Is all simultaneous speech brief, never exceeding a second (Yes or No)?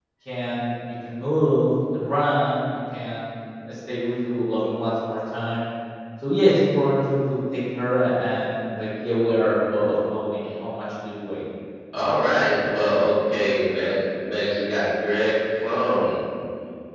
Yes